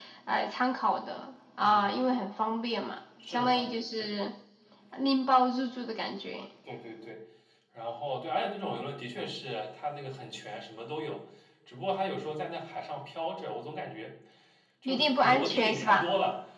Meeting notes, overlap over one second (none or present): present